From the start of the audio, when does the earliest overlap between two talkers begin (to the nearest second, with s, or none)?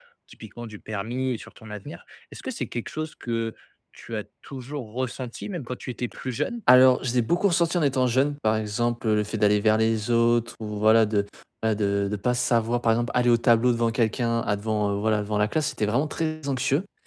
none